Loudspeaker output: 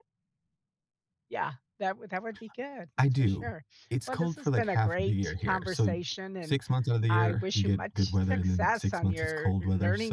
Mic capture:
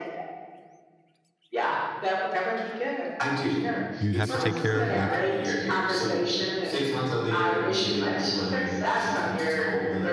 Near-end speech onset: 4.0 s

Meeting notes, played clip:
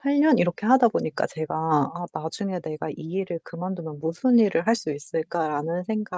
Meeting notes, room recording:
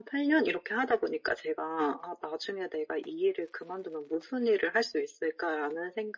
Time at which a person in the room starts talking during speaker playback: none

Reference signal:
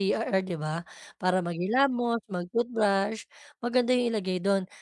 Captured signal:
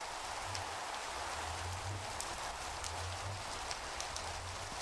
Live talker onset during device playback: none

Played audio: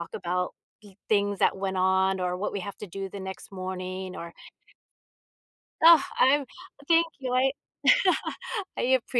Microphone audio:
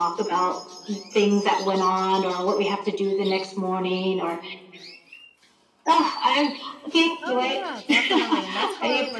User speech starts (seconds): 7.2 s

